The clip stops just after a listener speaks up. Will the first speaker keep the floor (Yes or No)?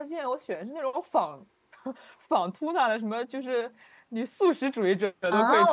No